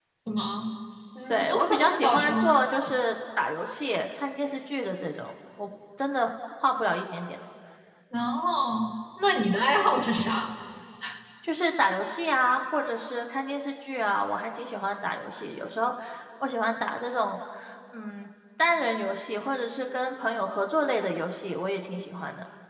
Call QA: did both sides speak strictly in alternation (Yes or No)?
No